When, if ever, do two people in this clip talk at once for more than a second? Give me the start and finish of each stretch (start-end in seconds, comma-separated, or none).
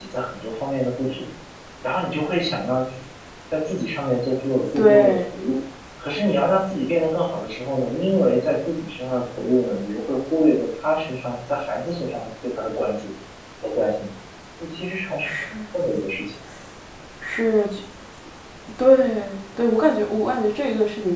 none